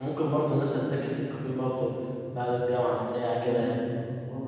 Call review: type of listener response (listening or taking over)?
taking over